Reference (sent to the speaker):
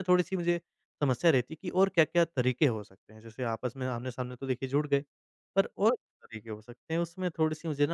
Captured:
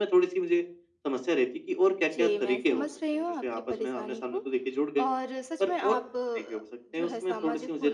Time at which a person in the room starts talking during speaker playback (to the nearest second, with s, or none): 2 s